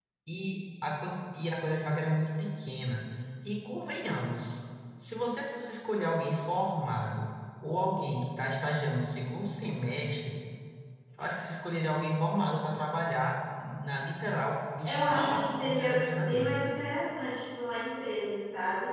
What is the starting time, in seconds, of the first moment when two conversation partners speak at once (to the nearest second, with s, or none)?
15 s